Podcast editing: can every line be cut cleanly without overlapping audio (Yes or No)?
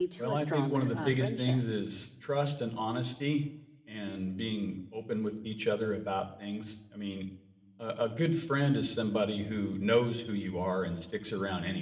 No